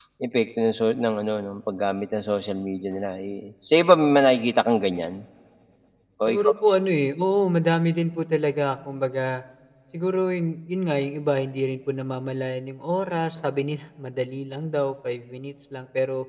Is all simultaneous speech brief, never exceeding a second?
Yes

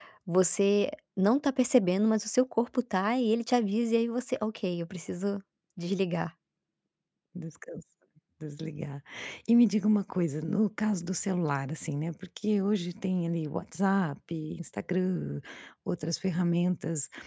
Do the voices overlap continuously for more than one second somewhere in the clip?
No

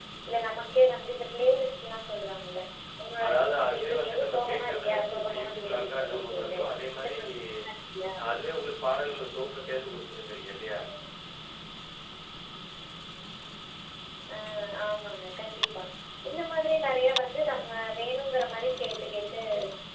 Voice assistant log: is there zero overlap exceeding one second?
No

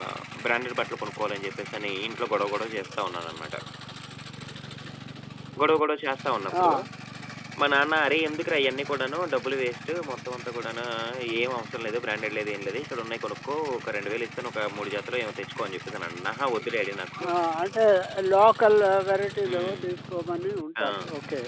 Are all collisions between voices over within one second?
Yes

